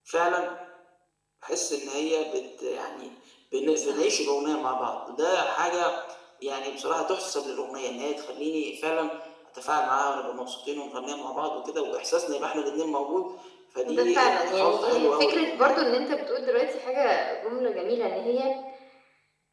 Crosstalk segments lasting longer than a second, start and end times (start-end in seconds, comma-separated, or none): 13.9-15.8